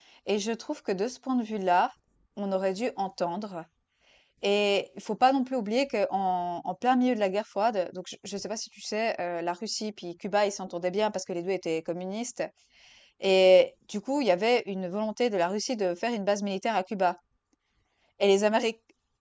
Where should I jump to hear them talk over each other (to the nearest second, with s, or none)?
none